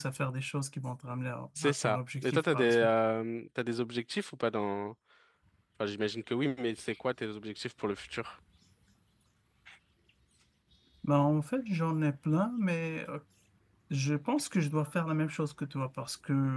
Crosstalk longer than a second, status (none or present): present